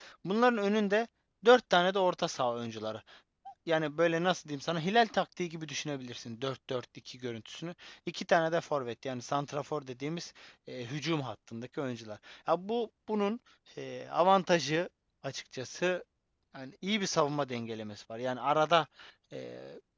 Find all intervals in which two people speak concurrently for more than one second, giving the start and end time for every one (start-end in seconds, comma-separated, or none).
none